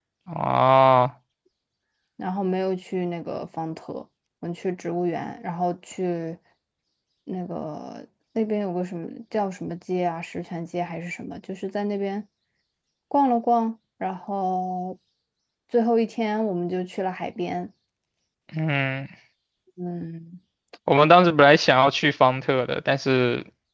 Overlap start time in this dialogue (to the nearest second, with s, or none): none